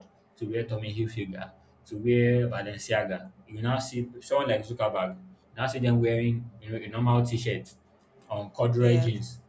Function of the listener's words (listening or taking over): listening